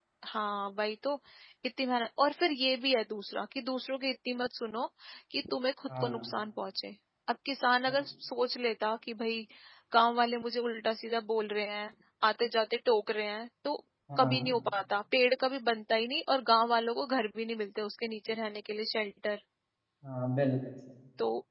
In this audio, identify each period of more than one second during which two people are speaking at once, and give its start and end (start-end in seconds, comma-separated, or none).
none